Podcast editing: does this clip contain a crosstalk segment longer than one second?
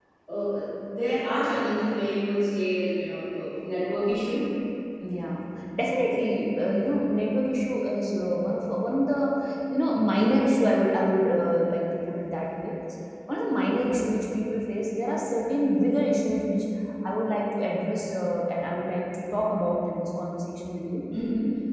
No

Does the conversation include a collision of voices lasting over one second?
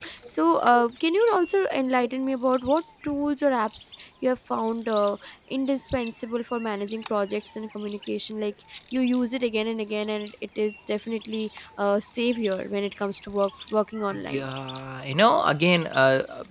No

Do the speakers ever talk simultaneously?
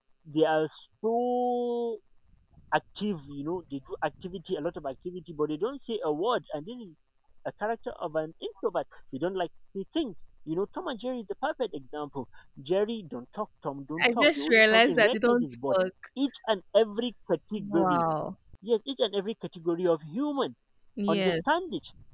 Yes, from 14.0 s

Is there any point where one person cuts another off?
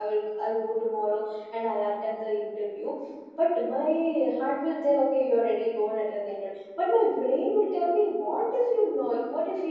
No

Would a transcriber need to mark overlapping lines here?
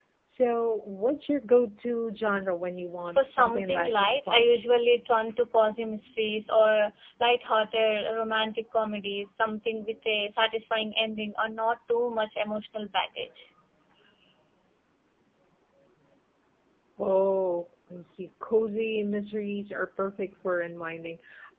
Yes, from 3.2 s

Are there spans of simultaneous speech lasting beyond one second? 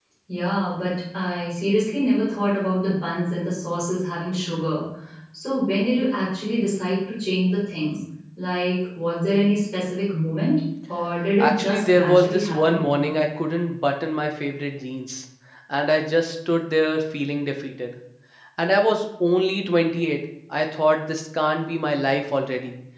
Yes, from 11.4 s

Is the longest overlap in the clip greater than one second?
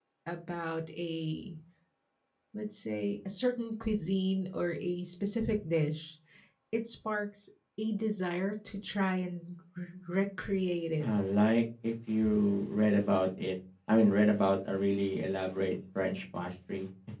No

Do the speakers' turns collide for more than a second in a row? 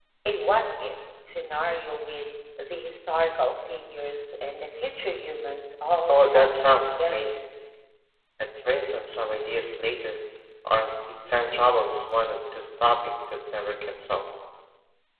Yes, from 6.1 s

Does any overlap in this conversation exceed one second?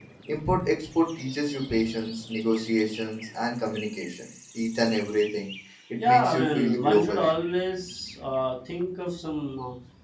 Yes, from 6.0 s

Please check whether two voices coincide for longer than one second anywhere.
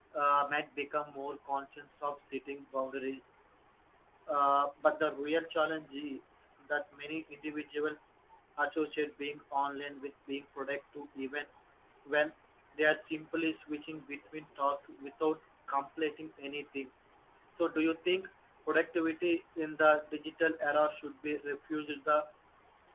No

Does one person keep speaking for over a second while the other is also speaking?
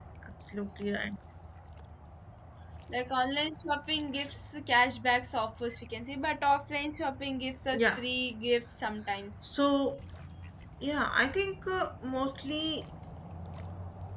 No

